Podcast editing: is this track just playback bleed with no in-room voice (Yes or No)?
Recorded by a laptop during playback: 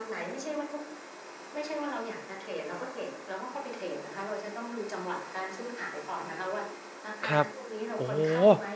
No